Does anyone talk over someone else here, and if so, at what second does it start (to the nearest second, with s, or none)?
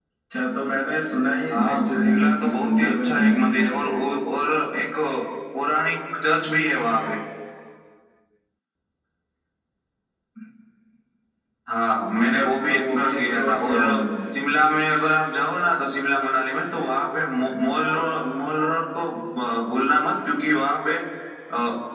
1 s